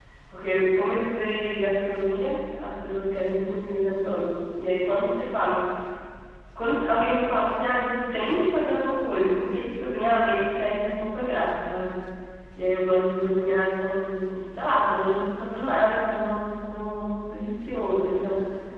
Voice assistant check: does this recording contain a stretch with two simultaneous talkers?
No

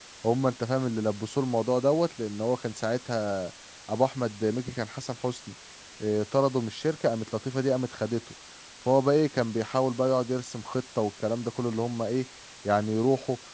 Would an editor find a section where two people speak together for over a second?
No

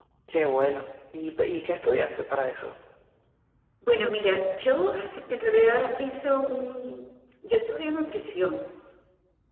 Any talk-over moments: No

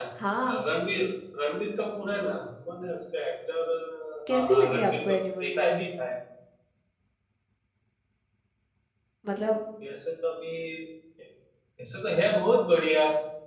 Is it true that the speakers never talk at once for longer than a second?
No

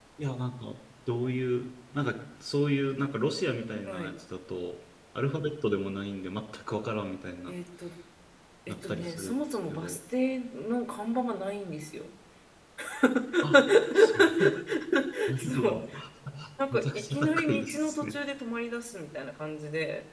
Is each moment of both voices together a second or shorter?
No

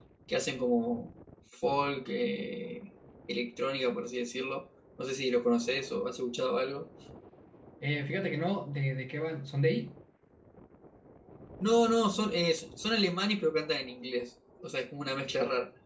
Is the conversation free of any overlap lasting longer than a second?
Yes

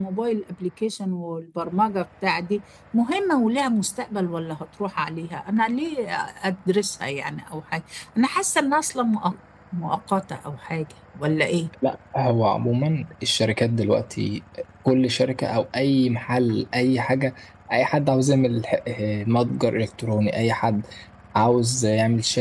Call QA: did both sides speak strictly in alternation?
Yes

